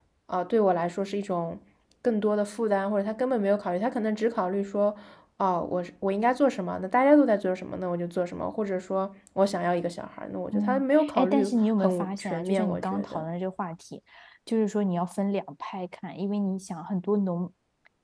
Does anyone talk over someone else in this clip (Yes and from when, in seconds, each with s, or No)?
Yes, from 10.5 s